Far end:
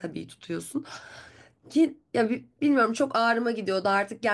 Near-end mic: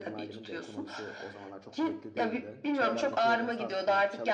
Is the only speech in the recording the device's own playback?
No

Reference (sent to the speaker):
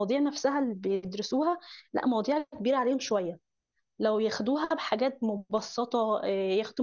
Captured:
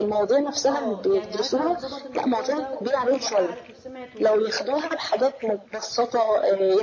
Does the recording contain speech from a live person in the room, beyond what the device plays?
Yes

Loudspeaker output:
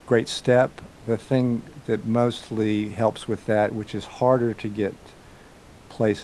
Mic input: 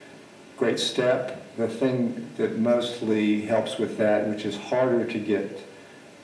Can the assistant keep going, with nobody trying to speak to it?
Yes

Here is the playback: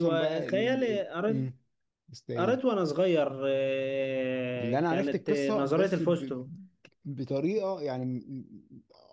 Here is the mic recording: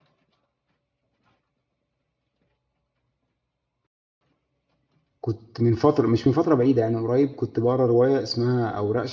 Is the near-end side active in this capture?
Yes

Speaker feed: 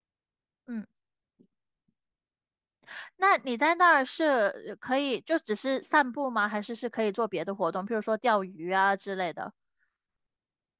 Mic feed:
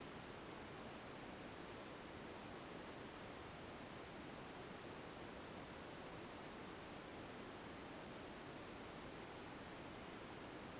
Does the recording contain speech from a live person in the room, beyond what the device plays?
No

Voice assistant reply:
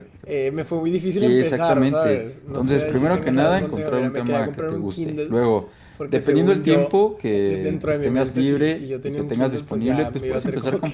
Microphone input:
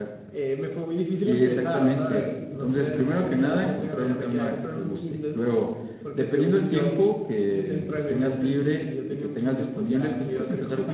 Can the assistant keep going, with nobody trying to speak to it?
Yes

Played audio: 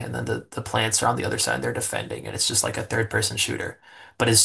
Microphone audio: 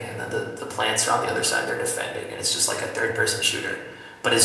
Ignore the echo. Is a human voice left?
No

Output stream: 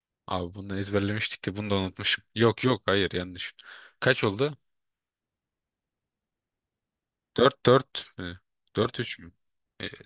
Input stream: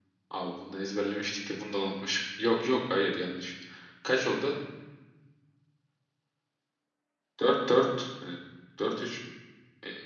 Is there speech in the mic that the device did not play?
No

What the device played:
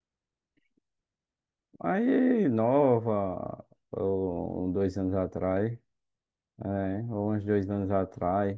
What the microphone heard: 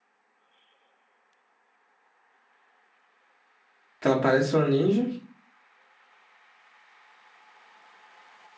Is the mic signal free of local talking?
No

